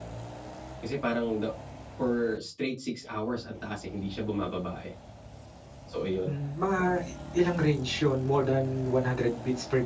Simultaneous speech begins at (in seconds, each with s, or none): none